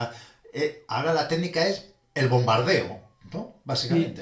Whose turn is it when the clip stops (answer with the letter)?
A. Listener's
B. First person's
A